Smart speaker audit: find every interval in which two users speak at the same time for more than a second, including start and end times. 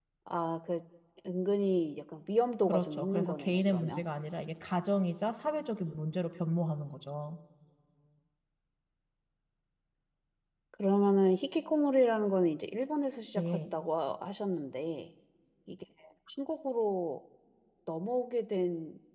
2.6-4.0

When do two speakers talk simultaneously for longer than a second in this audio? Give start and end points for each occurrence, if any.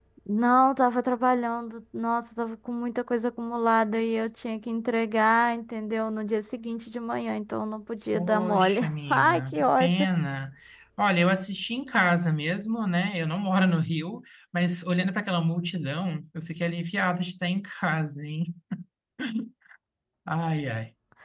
8.1-9.9

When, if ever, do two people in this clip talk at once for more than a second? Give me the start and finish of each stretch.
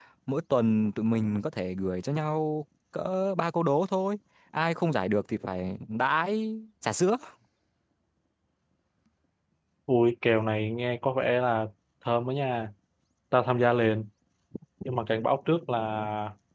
none

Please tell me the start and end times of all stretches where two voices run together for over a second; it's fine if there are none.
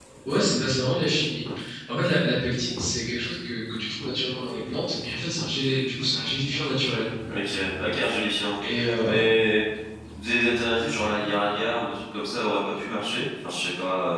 none

